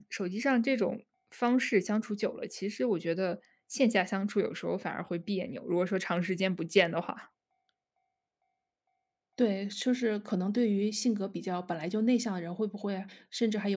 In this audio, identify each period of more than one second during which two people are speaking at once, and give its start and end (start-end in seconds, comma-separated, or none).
none